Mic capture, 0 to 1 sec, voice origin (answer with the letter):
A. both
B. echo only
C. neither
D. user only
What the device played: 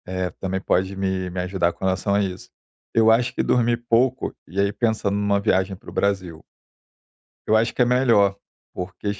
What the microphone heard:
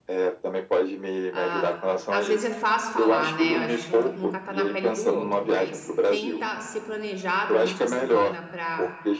B